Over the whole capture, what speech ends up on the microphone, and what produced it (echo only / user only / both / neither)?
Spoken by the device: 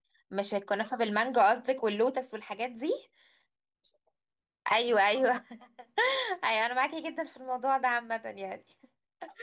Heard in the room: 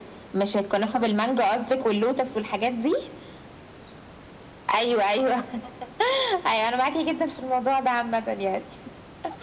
echo only